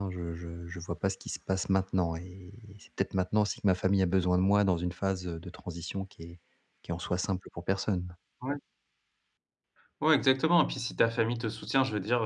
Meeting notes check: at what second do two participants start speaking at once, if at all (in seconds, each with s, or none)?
none